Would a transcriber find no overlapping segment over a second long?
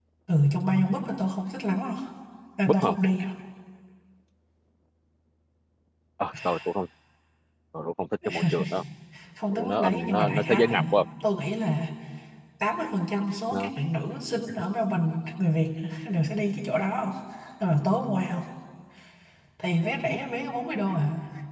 No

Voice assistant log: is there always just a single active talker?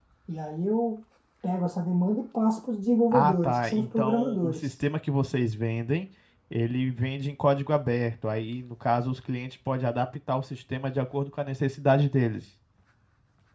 No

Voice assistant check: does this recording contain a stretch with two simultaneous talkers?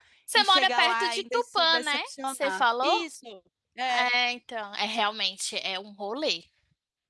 Yes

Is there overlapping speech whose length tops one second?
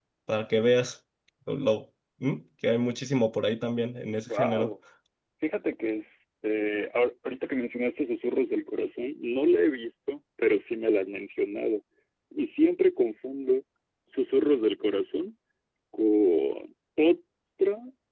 No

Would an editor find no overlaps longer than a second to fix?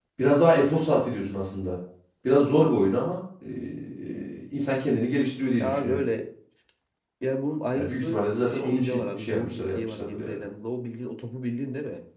No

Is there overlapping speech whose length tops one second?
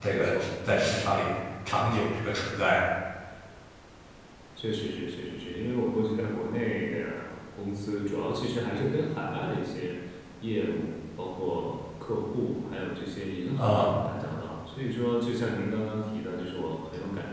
No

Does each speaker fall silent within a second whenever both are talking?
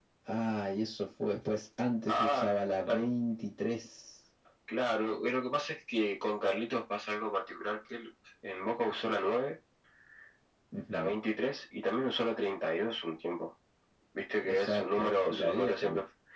No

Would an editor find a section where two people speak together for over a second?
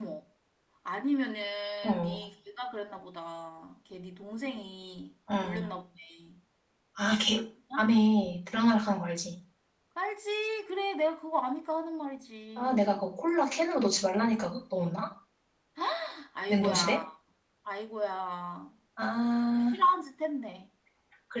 No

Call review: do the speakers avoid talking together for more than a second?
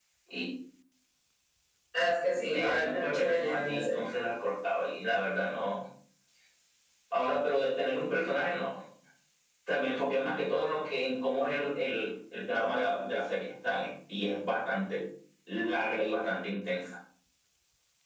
No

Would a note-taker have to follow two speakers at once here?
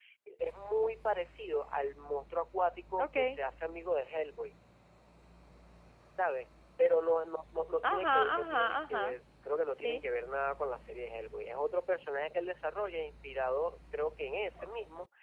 Yes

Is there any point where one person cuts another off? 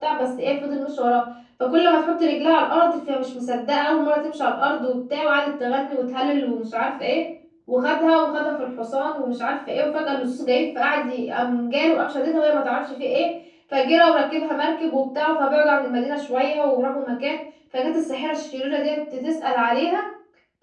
No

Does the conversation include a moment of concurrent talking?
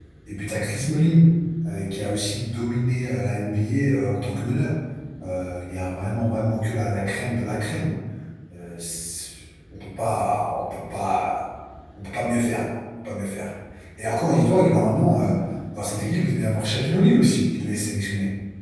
No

